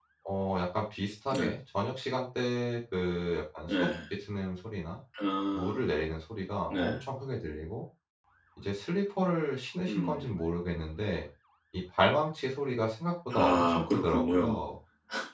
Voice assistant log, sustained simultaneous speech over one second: present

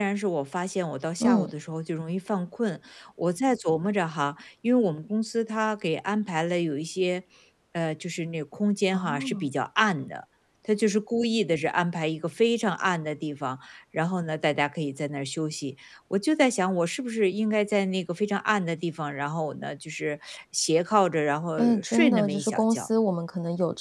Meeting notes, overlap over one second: present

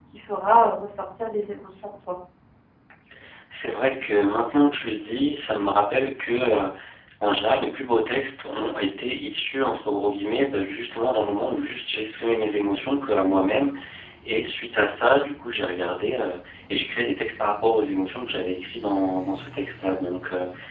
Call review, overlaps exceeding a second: none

